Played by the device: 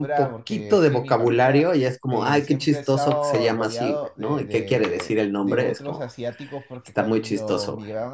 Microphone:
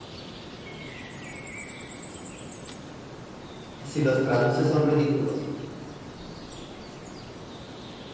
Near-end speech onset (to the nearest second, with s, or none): 4 s